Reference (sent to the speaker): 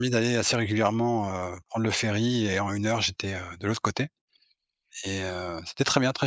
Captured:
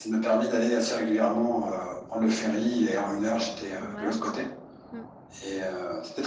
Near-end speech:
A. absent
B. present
B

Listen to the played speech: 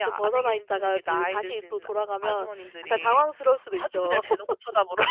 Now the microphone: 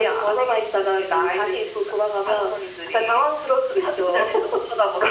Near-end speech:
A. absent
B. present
A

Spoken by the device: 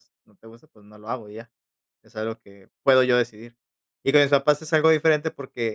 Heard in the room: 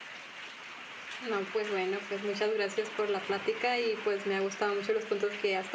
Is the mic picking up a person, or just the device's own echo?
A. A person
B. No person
A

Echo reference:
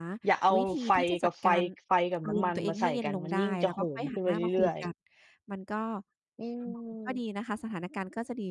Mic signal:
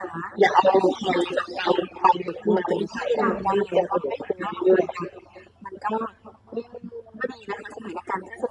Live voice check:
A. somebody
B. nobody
A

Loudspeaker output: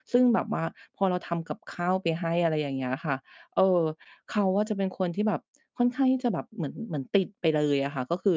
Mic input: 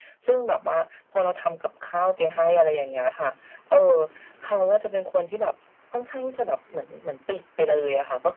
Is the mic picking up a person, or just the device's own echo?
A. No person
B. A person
A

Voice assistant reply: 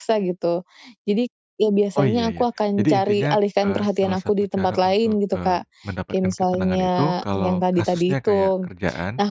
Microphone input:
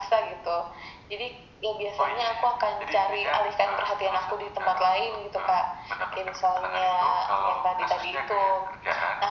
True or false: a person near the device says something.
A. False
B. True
A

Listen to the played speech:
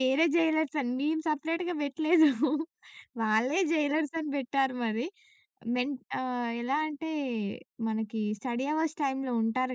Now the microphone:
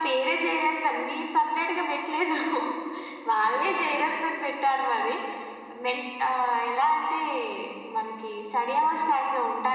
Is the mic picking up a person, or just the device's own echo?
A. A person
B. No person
B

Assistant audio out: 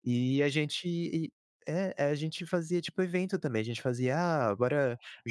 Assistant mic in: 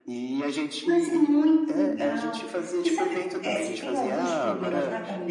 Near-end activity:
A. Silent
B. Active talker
B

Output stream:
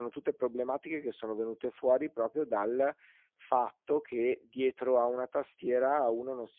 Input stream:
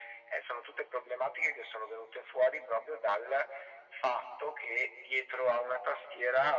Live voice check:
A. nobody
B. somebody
A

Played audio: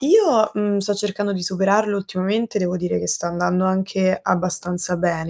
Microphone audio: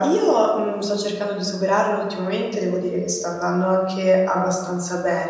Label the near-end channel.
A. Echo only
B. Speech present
A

